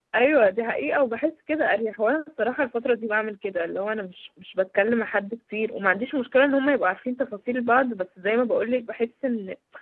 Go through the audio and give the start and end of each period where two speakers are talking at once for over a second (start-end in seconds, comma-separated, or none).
none